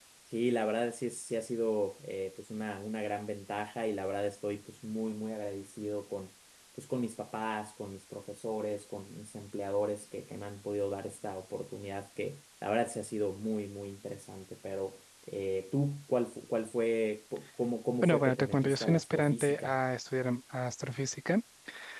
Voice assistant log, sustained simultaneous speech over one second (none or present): present